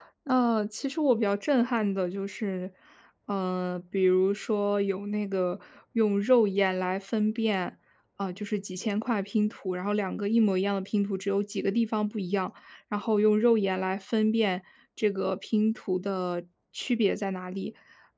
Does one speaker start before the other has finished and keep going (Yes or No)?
No